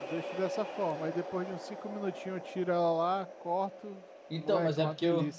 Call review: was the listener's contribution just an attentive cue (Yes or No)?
No